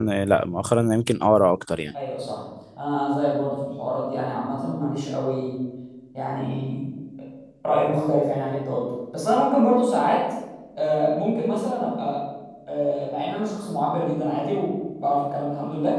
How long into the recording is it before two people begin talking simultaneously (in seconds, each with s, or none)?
none